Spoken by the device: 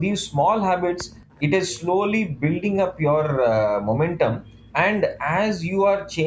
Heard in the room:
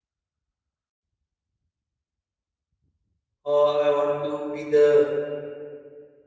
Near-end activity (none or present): present